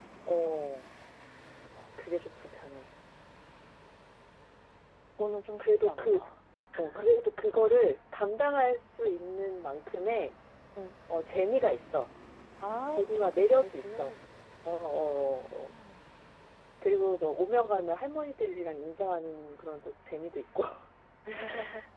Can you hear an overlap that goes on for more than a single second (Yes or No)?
Yes